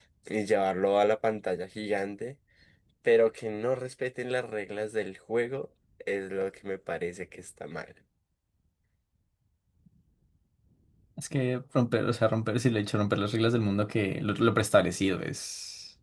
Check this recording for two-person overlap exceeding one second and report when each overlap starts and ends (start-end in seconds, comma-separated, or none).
none